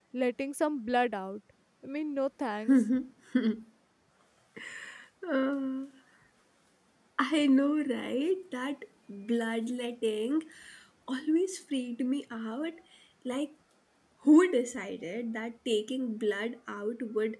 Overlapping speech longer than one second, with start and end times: none

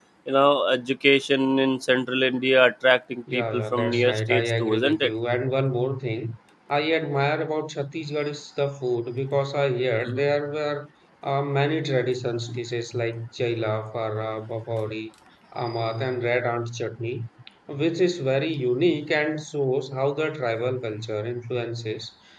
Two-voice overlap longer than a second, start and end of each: 3.3-5.1

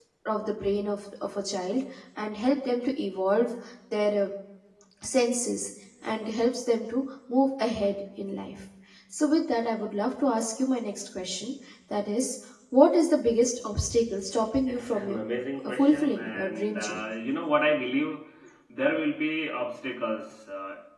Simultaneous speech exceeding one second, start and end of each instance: 15.6-17.0

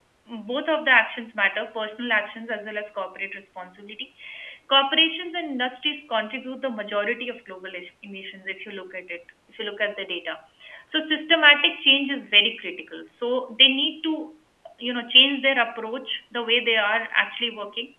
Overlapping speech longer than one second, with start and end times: none

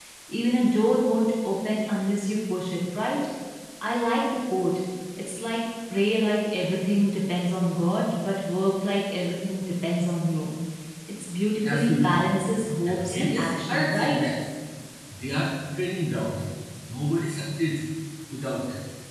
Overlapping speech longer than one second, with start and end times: 12.8-14.3

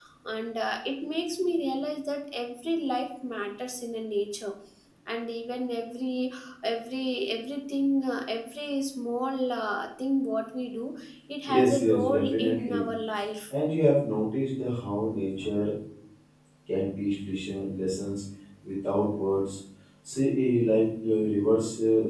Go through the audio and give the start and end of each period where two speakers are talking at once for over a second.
11.5-12.8

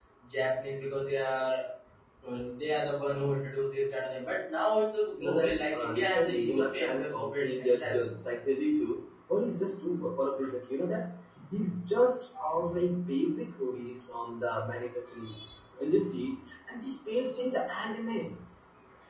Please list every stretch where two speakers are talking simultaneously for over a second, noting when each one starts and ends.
5.2-8.0

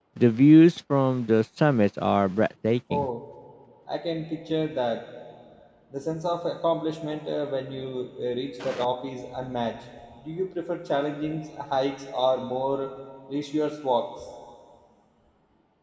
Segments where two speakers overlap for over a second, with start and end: none

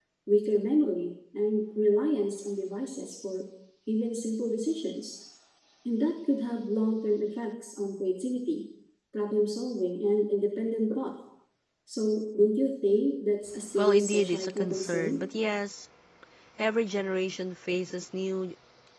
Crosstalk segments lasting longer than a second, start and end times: 13.8-15.2

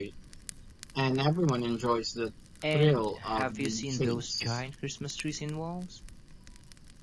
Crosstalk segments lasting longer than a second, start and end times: 2.7-4.6

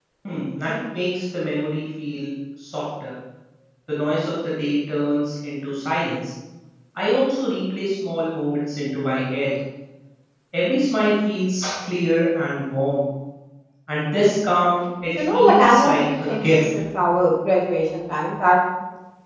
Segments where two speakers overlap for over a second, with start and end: 15.2-16.7

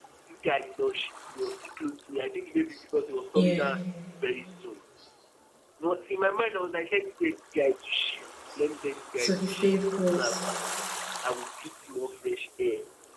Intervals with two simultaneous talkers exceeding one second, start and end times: 9.2-10.4

